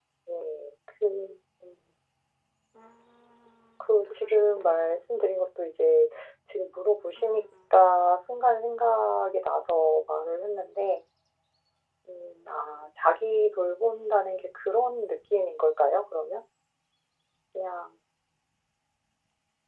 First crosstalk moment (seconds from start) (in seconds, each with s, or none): 3.8 s